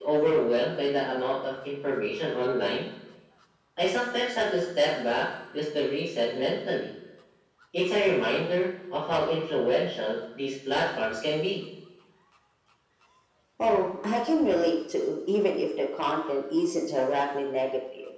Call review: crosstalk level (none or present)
none